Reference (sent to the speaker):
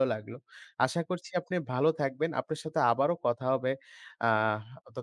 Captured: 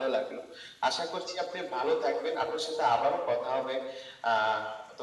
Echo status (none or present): present